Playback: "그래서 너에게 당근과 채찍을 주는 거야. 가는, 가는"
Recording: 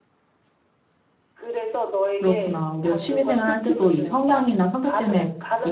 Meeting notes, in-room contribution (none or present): present